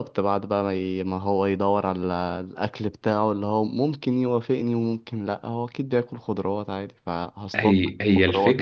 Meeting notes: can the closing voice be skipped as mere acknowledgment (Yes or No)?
No